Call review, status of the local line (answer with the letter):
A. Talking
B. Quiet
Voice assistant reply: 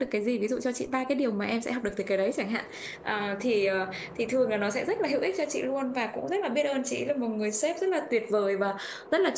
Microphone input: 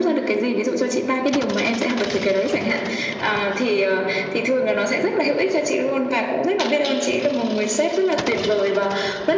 B